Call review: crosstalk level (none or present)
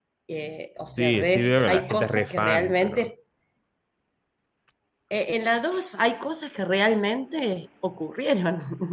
present